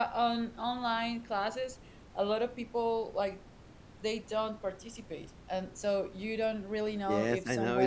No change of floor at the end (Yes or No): No